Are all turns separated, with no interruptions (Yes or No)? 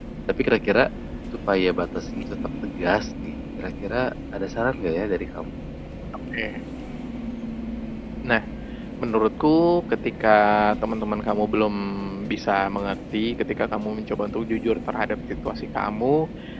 Yes